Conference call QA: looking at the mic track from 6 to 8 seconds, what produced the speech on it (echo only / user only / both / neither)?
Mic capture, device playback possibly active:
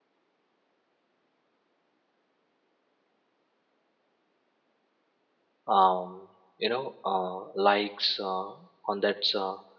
user only